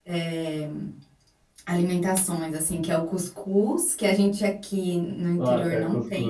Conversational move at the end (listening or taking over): taking over